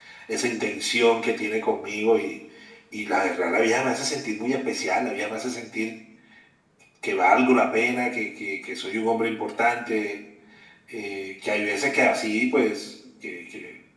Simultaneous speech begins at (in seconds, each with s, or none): none